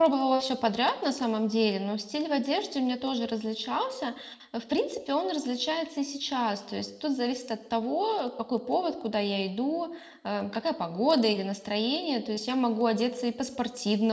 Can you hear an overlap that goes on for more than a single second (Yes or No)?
No